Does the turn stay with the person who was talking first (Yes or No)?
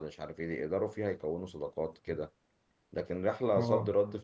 Yes